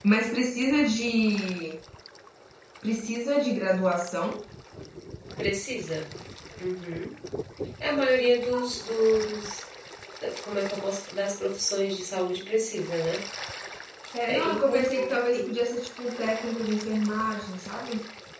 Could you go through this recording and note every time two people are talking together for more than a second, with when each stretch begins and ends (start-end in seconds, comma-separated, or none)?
14.3-15.5